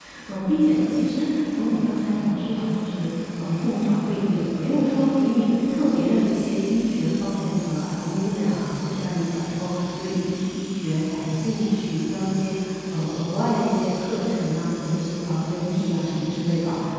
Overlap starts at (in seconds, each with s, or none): none